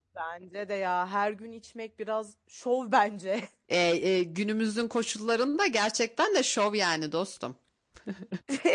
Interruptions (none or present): none